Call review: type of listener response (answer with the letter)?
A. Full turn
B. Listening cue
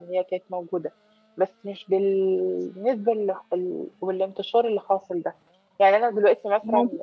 B